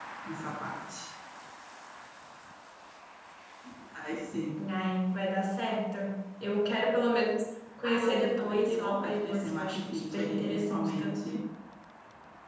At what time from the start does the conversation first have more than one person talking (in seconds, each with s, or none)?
7.8 s